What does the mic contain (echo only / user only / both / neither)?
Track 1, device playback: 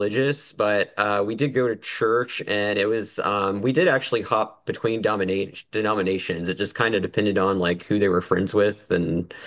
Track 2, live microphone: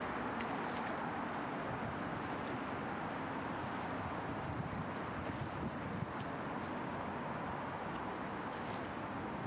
neither